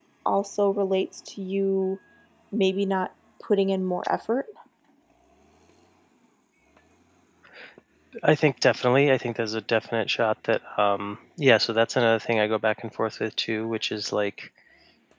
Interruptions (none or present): none